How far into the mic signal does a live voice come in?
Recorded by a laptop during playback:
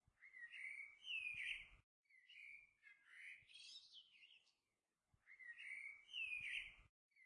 none

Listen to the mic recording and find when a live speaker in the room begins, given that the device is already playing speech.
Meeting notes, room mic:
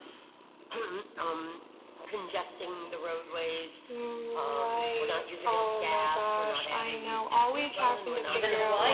8 s

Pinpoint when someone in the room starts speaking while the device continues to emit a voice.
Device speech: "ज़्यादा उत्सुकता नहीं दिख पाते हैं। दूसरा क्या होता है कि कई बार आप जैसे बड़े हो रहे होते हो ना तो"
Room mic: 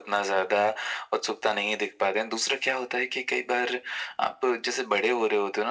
none

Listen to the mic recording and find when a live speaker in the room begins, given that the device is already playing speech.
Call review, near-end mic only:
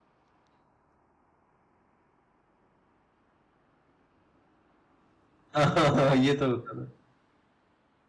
6 s

